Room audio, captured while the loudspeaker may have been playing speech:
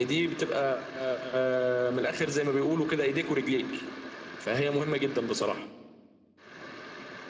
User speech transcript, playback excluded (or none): none